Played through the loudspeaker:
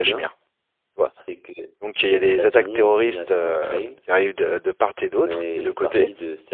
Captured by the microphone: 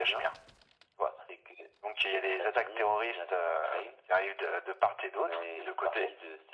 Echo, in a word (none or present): present